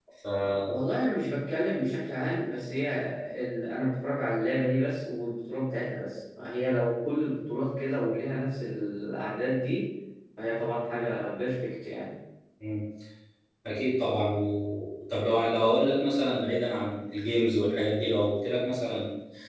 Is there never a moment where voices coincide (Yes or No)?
Yes